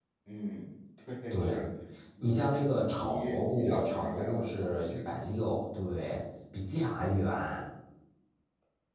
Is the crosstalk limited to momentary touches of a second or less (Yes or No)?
No